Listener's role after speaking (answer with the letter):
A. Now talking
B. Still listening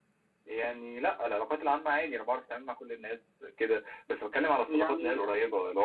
B